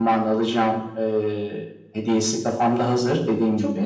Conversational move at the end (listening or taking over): listening